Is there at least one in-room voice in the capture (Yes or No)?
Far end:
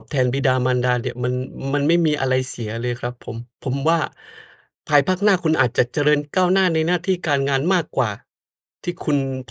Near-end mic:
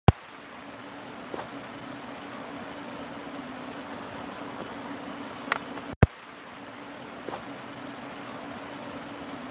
No